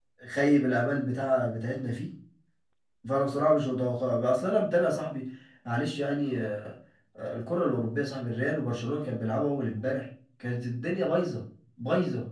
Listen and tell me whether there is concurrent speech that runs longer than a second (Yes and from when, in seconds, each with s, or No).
No